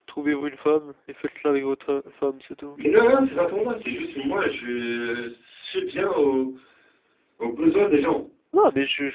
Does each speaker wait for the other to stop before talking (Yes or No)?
Yes